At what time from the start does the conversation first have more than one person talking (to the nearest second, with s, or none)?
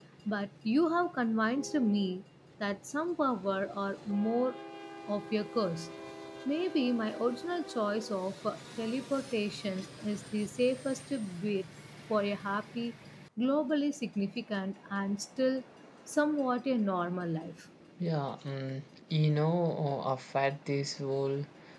none